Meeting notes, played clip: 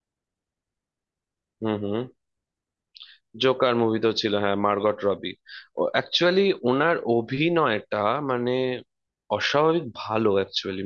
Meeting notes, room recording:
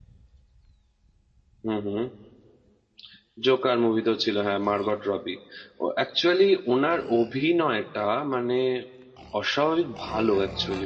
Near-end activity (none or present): present